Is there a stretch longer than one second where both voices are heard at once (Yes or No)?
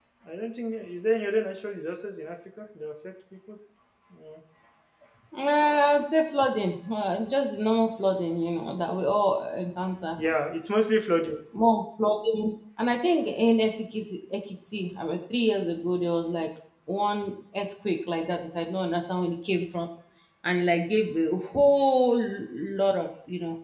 No